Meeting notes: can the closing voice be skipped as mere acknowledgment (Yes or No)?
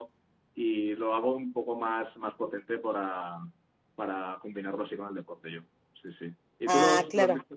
Yes